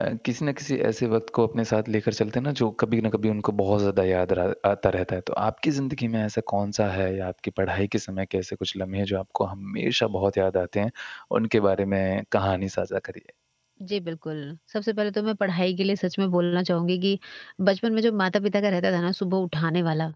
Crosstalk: none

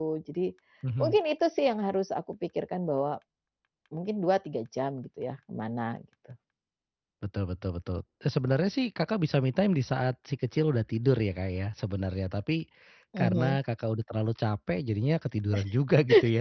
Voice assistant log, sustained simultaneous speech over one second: none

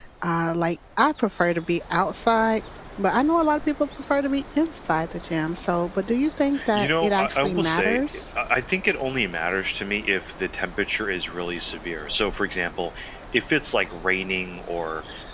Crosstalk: present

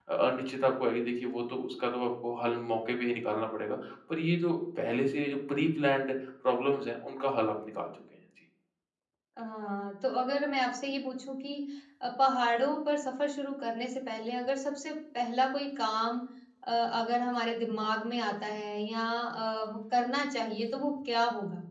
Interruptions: none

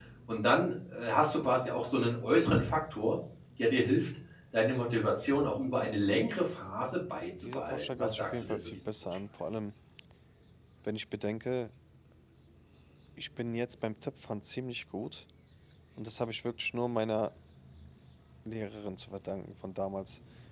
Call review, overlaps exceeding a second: present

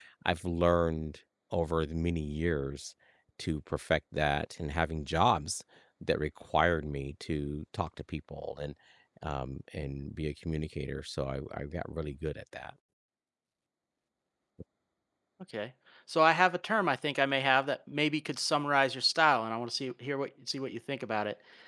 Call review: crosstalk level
none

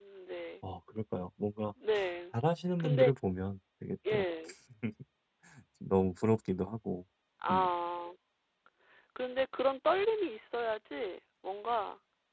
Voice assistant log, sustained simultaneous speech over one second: none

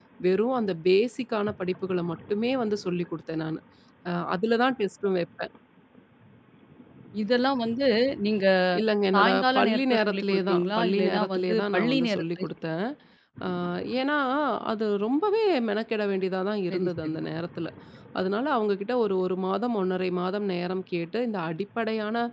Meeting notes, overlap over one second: present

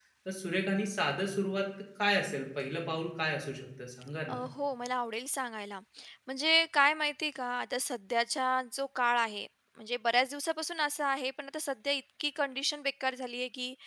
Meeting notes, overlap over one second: none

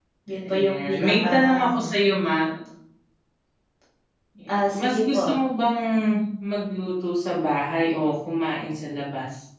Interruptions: present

